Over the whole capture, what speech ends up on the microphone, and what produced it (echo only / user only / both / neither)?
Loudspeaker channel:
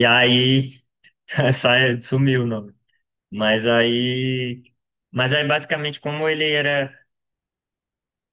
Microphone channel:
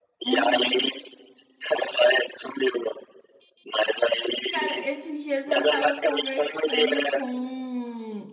both